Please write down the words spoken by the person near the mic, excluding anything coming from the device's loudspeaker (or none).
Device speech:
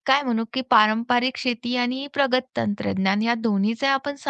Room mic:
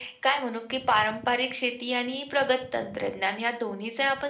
none